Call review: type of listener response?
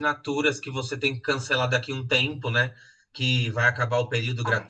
listening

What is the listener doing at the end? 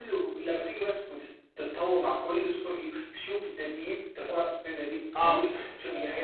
listening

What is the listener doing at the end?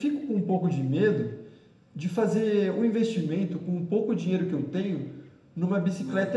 listening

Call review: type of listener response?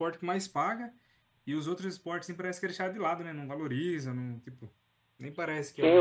taking over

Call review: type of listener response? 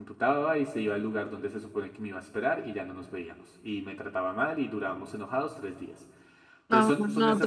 taking over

